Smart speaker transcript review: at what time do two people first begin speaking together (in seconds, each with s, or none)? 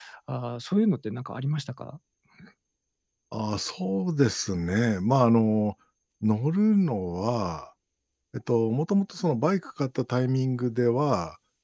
none